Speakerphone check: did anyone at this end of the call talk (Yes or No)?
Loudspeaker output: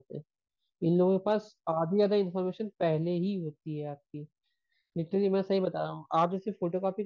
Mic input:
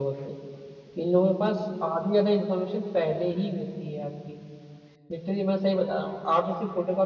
No